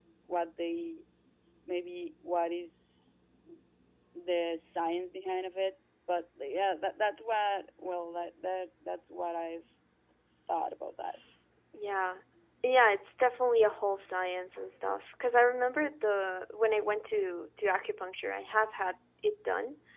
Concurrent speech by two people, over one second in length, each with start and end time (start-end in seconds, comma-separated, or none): none